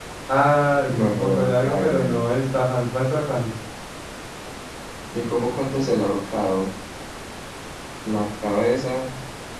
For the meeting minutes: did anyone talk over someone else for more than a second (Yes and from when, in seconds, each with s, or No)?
Yes, from 0.8 s